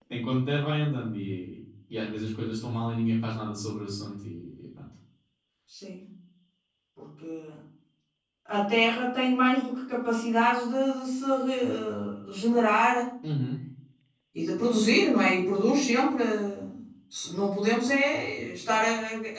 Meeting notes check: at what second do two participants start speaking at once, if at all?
none

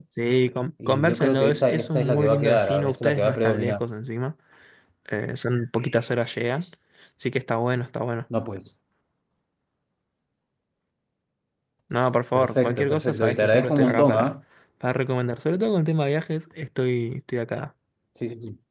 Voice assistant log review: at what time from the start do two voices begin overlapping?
1 s

